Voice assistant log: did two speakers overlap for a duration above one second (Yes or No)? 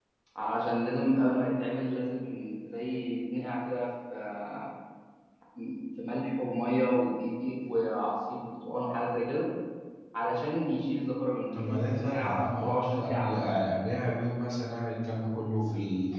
Yes